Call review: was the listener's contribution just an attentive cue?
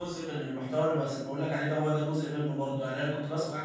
Yes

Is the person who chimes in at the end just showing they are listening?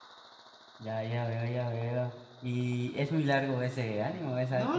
No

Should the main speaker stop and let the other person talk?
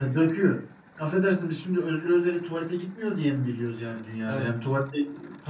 No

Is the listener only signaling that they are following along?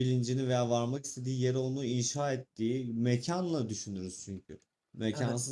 Yes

